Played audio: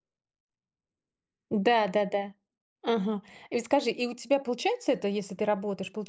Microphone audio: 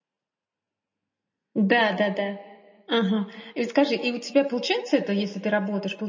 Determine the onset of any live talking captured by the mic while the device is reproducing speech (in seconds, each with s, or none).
none